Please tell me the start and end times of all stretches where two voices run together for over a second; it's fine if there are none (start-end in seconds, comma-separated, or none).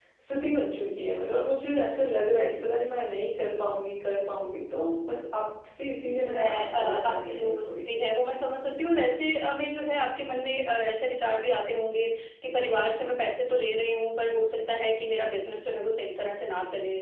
6.2-7.9